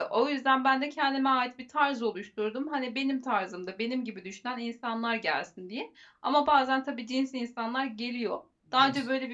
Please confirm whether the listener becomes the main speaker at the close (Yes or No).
No